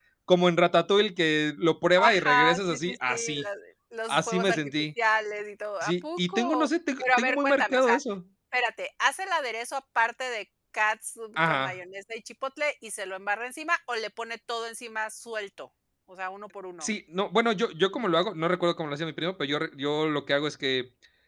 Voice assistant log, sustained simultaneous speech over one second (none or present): present